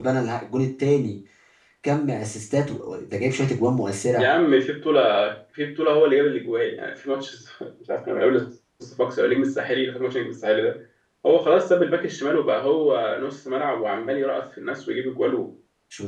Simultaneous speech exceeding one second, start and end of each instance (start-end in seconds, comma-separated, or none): none